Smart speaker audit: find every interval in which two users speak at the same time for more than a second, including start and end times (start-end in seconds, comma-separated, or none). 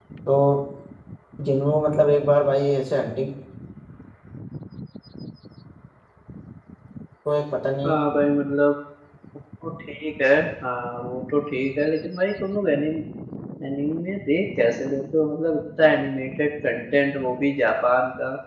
none